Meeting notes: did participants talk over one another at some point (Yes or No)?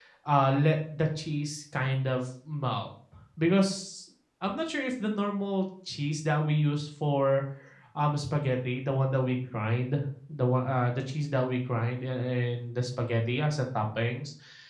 No